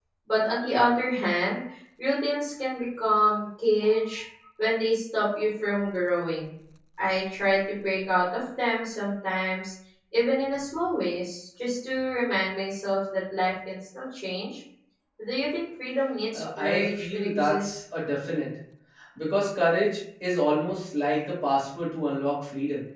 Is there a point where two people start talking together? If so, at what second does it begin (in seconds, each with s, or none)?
16.3 s